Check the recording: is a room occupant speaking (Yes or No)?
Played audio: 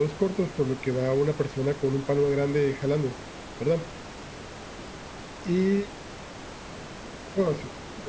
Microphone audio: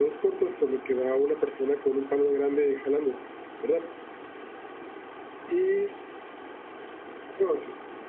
No